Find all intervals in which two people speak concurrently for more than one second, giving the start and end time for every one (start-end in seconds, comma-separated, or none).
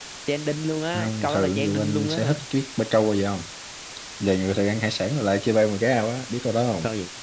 0.9-2.4